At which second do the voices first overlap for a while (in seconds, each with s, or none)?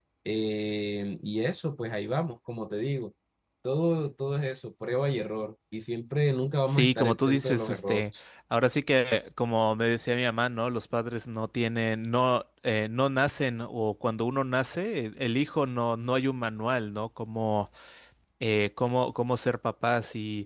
6.7 s